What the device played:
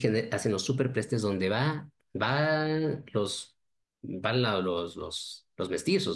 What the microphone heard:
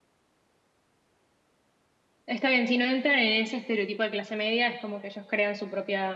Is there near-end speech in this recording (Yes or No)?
Yes